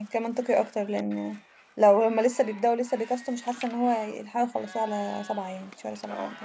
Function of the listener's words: taking over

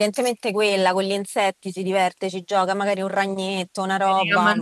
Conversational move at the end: taking over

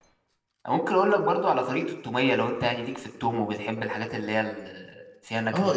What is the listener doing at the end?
taking over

